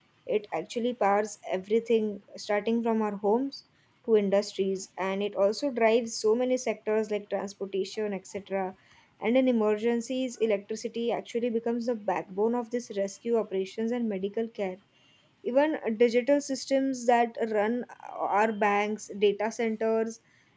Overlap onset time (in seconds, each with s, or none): none